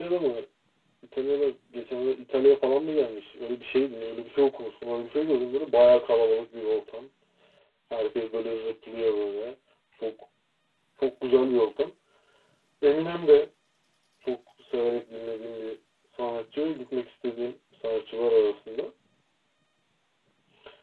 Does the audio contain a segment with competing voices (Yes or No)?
No